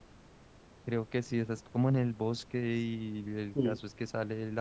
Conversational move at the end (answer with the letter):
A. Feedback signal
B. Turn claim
A